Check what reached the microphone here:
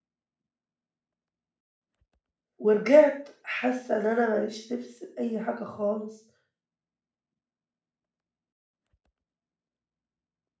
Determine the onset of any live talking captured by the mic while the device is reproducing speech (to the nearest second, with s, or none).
3 s